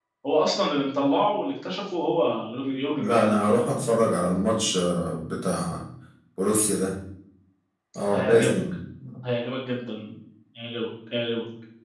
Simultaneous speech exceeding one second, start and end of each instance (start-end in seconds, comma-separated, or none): none